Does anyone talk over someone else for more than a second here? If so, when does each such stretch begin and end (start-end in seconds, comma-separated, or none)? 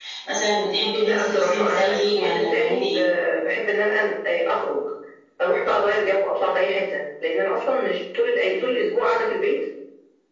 1.0-3.0